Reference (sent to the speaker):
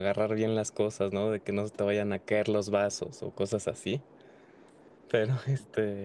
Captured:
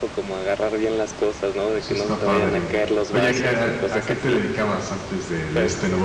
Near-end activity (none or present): present